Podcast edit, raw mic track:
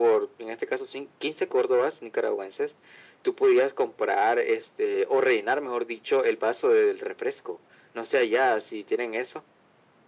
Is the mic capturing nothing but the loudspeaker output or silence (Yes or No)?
Yes